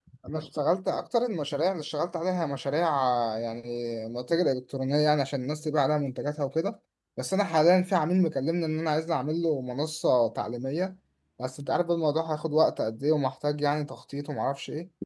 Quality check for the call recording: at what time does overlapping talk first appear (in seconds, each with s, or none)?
none